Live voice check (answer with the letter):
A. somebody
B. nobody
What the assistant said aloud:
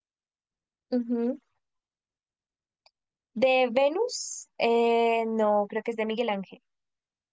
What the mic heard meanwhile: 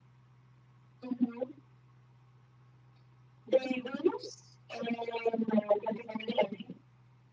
B